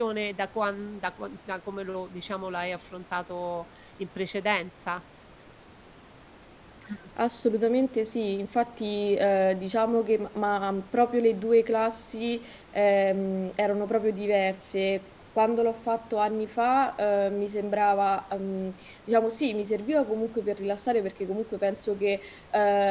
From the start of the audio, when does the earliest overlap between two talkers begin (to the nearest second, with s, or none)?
none